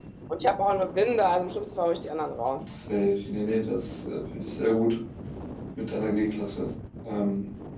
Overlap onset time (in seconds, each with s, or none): none